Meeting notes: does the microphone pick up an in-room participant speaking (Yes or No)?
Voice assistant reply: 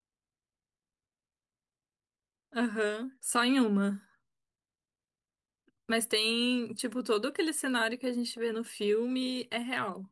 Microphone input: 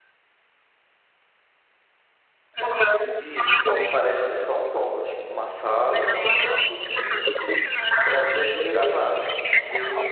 Yes